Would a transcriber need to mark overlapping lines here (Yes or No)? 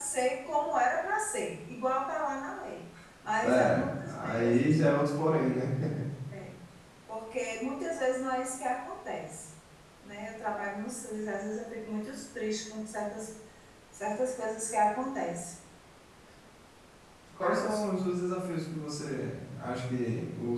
Yes